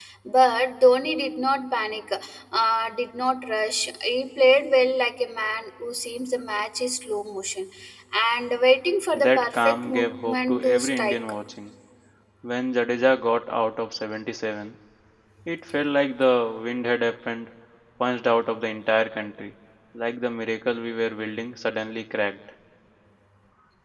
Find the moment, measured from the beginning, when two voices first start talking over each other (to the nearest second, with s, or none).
9 s